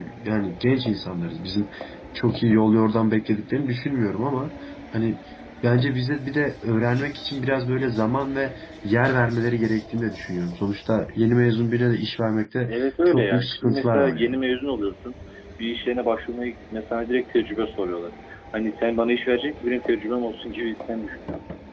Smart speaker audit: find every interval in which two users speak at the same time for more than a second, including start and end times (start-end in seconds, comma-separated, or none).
12.7-14.4